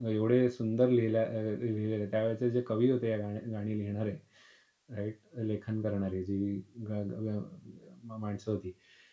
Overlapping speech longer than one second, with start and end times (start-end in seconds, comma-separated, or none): none